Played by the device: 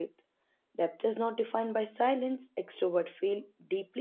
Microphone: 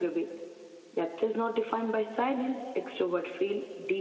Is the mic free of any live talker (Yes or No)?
Yes